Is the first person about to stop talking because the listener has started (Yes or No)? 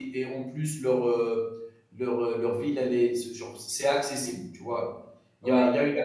No